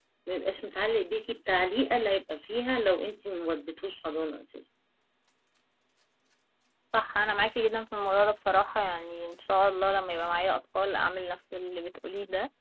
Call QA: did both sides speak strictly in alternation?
Yes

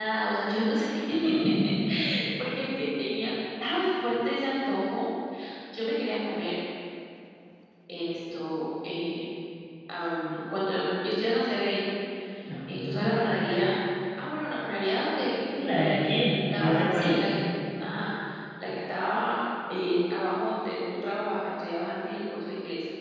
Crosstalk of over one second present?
Yes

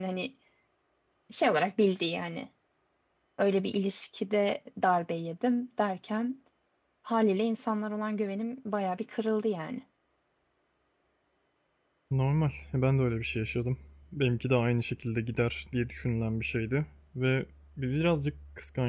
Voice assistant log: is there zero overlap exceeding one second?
Yes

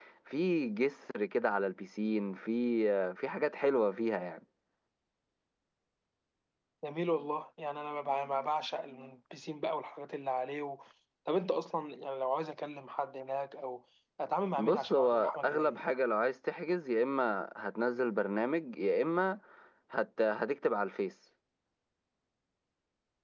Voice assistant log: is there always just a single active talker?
No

